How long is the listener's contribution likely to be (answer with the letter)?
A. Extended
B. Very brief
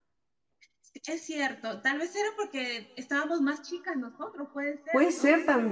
A